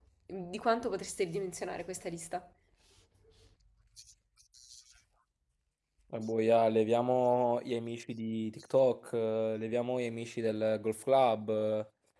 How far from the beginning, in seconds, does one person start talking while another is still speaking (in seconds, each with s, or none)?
none